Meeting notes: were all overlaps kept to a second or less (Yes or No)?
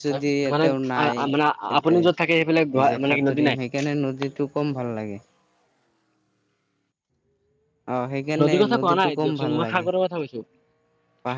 No